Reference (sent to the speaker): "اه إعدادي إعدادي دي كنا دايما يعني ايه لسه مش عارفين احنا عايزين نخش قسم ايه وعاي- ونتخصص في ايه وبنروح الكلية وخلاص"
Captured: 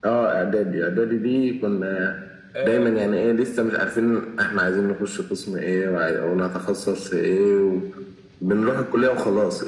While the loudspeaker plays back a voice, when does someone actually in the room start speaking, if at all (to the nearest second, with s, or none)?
3 s